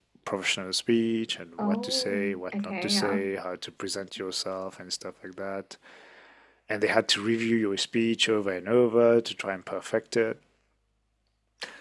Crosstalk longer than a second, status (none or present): present